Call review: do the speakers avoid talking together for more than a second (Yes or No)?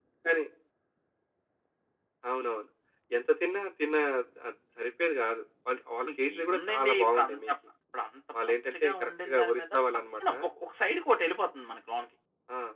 No